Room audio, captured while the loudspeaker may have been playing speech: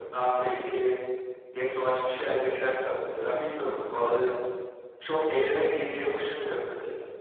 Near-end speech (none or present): none